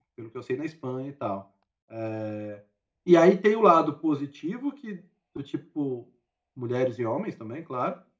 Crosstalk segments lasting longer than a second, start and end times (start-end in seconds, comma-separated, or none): none